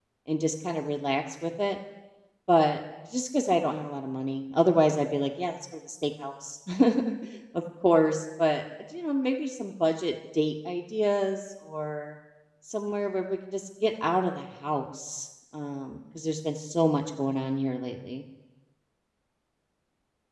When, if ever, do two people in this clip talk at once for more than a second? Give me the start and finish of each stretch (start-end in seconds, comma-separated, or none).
none